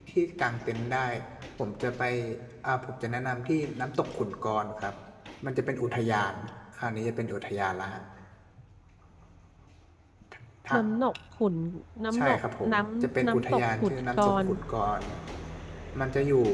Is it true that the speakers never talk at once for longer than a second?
No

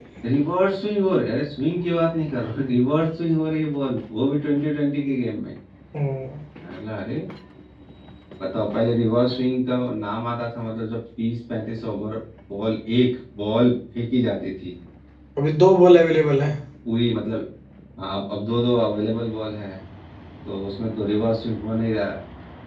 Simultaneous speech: No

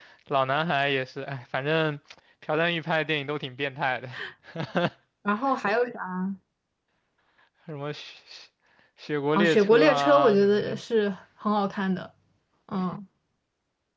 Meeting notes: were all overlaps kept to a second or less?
No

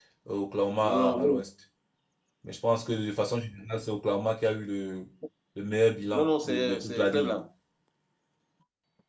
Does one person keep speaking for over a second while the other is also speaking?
Yes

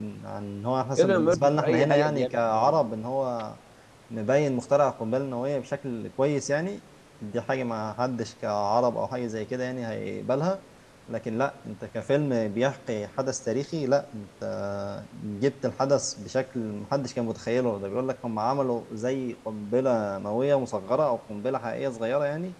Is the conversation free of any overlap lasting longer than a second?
No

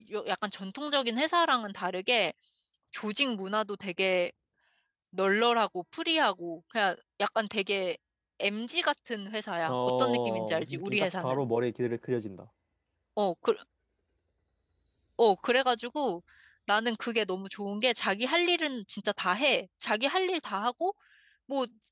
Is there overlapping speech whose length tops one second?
Yes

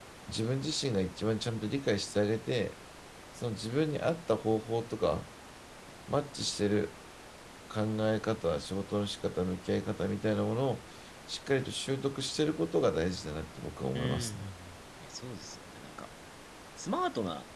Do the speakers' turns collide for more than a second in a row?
No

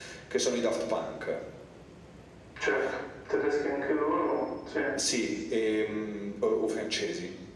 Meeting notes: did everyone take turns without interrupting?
Yes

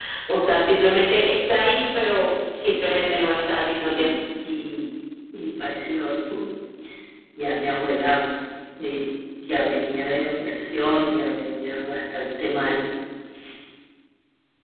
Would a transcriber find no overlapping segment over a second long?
Yes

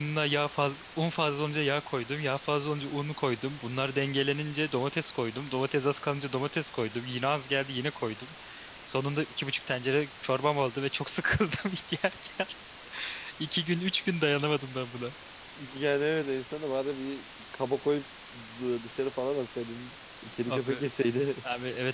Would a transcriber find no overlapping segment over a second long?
Yes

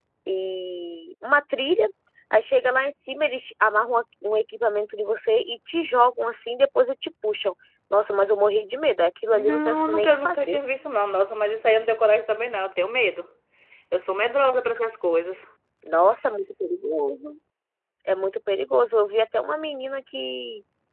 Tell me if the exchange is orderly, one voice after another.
No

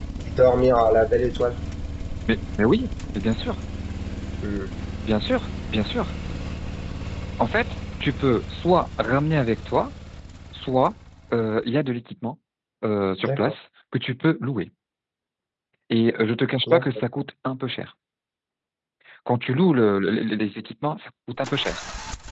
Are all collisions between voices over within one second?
Yes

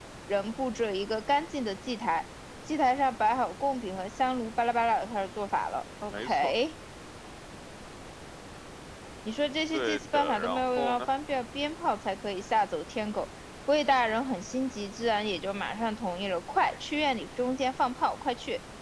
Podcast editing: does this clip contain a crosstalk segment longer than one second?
Yes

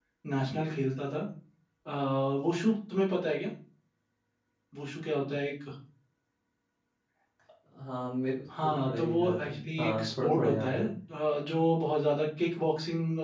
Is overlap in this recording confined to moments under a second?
No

